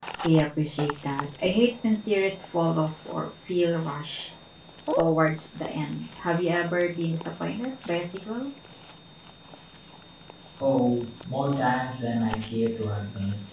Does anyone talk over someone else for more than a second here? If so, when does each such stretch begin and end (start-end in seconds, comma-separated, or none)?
none